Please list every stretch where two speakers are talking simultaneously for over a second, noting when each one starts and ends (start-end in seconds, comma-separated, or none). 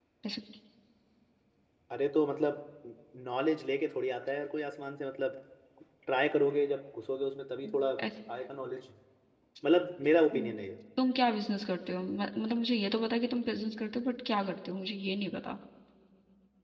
none